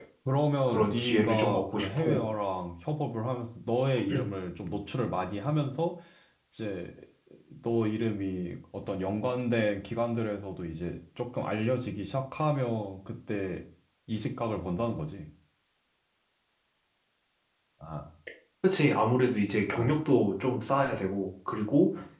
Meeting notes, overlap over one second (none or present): present